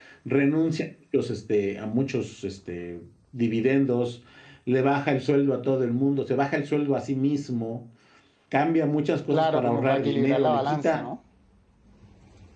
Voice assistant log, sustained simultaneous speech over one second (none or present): present